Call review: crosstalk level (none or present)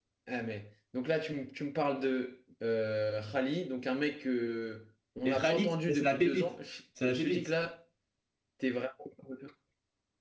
present